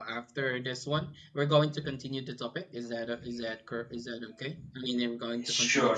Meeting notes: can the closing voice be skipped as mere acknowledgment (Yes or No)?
No